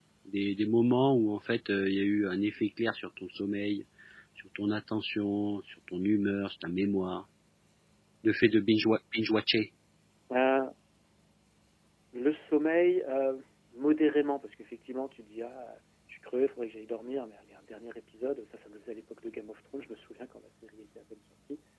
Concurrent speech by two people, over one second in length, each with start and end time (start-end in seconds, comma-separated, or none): none